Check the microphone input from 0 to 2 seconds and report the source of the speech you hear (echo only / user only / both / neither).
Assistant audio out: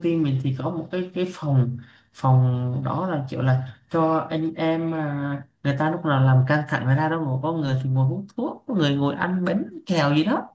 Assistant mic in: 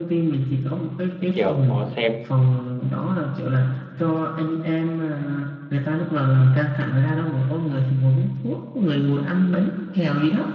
both